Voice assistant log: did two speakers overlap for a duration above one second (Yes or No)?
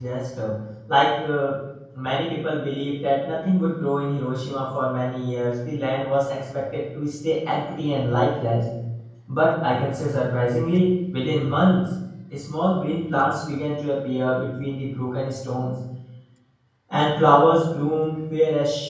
No